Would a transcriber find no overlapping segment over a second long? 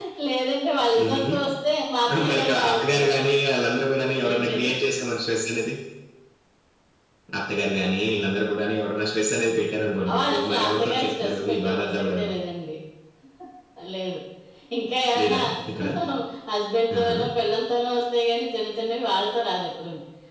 No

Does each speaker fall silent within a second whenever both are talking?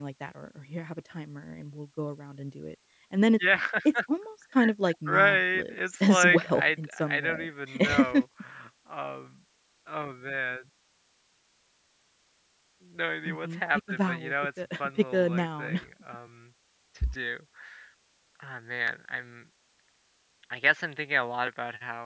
No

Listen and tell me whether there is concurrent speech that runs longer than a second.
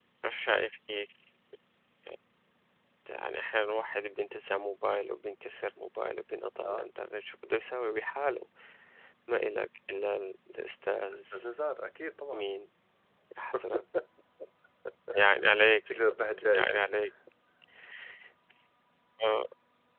No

